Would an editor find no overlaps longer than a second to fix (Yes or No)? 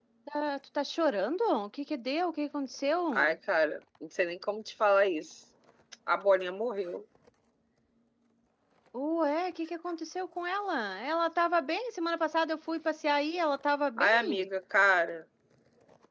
Yes